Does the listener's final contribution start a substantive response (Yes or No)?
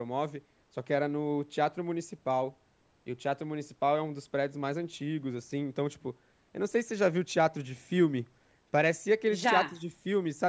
No